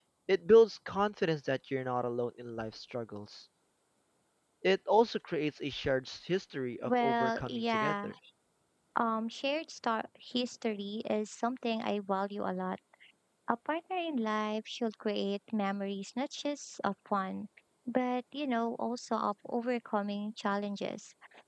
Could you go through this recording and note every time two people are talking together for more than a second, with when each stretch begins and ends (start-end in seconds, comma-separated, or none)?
6.8-8.1